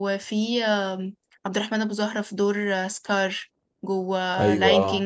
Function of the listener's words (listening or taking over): listening